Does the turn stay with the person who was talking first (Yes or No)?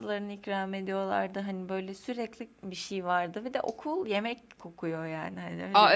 No